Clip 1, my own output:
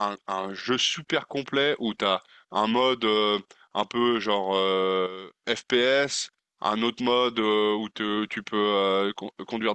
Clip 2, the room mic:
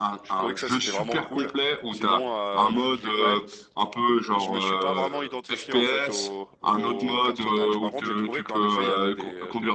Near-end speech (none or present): present